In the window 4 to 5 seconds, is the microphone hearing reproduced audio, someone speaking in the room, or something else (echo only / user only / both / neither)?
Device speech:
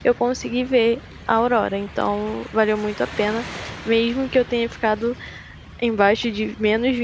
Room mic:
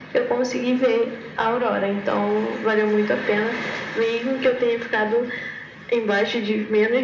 echo only